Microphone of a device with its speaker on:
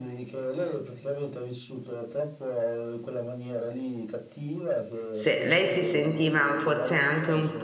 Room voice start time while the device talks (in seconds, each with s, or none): 5.1 s